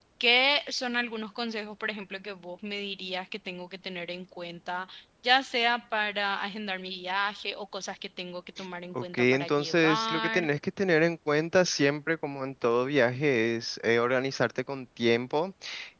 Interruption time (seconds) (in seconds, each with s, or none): 8.9 s